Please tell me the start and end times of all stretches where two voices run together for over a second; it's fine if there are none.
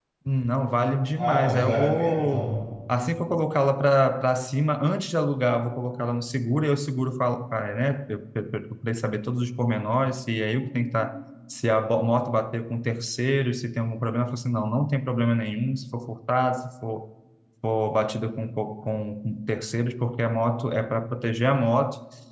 1.1-2.6

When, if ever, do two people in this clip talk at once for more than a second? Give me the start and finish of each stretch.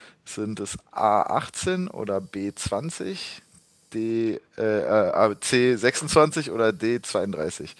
none

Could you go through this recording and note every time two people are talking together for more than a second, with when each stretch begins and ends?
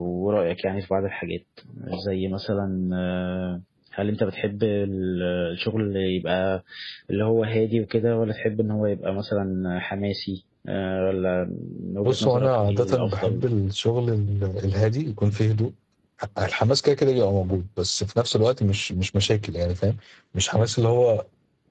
12.0-13.4

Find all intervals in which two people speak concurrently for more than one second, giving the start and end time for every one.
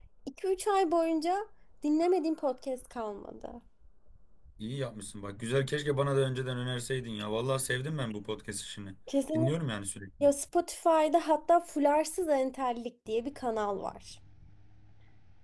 none

